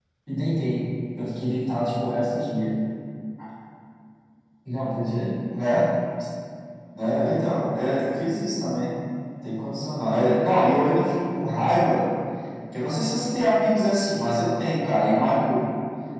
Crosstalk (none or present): none